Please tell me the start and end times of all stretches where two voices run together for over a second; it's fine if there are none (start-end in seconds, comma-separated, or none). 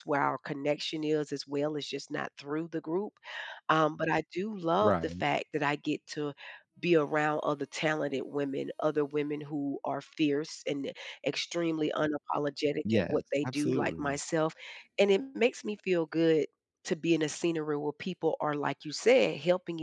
12.9-14.2